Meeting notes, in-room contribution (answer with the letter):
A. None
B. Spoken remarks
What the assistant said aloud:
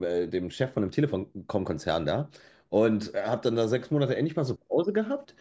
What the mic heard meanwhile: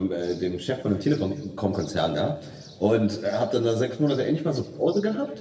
A